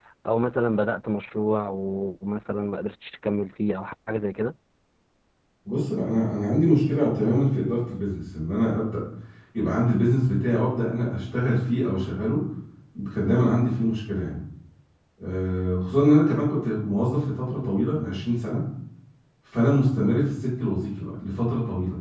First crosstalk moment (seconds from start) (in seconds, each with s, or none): none